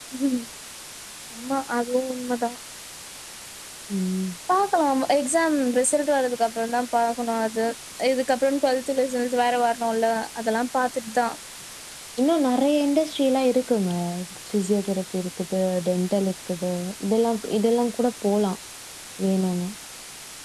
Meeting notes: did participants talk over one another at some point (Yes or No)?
No